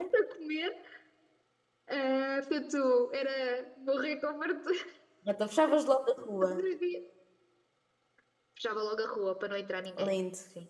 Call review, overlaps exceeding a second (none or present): none